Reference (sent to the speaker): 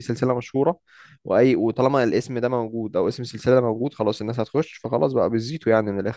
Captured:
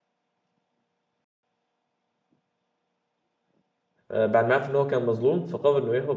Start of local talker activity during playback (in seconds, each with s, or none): 4.1 s